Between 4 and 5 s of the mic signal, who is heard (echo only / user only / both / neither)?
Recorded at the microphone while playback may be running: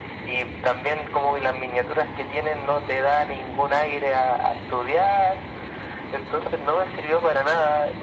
echo only